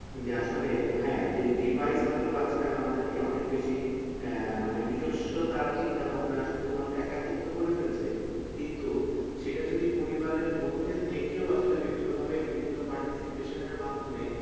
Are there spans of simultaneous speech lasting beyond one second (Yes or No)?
No